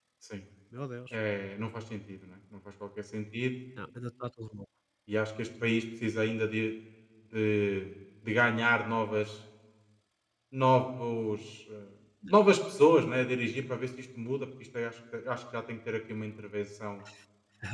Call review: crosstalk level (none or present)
none